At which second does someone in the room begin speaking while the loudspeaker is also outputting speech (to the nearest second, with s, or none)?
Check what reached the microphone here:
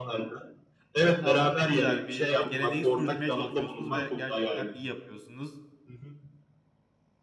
1 s